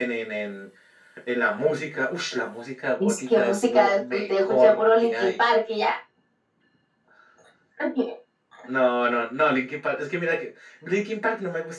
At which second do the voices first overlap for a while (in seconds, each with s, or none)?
3.0 s